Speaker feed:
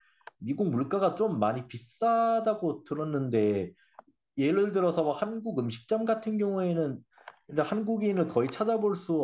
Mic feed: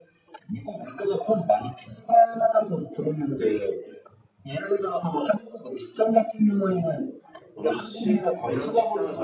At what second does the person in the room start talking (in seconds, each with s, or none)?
7.6 s